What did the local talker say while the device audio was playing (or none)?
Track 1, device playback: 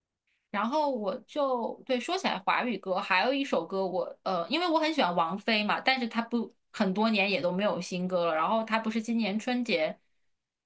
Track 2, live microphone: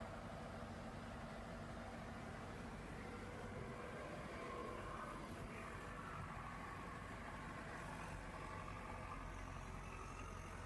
none